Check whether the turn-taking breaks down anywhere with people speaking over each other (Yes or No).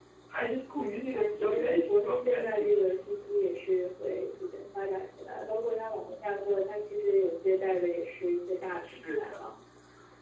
Yes